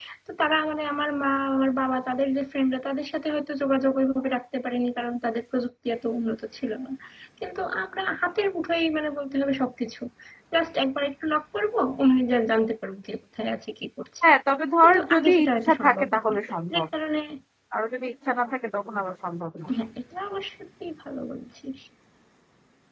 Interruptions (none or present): present